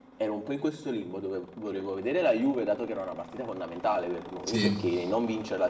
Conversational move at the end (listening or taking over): listening